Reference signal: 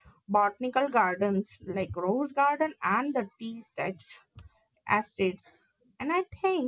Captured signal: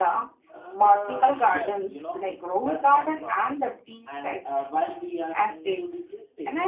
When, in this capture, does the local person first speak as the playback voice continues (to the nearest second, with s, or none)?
1 s